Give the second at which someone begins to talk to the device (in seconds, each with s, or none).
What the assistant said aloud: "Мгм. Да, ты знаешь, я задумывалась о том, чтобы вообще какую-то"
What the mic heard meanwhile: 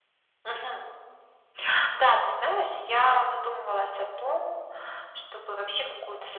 none